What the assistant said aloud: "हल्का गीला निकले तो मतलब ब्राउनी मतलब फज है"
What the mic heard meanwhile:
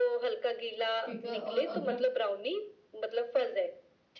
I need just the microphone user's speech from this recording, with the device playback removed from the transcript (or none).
ठीक है और अदरक